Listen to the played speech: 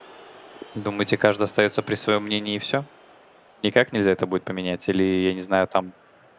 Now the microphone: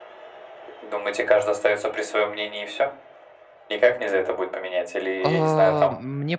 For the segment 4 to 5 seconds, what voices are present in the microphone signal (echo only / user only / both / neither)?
echo only